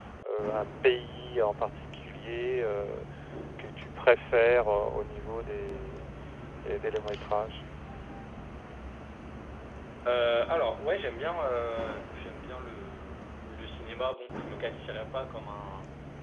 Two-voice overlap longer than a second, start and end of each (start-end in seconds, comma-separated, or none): none